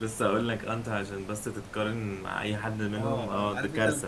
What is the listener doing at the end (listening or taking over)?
taking over